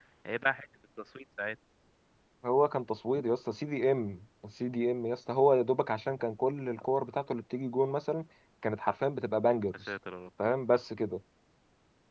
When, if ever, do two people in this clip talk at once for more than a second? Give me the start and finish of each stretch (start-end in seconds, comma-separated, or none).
none